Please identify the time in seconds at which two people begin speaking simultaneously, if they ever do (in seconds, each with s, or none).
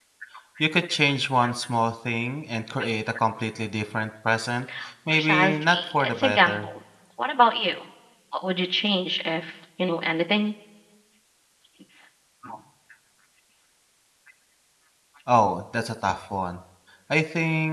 5.1 s